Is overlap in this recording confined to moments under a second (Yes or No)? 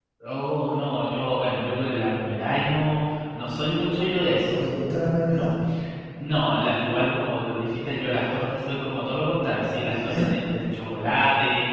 Yes